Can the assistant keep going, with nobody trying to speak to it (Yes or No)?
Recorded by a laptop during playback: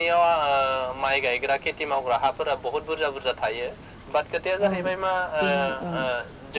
No